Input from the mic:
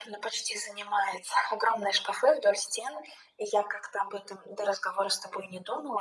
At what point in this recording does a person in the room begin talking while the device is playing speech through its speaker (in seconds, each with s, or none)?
none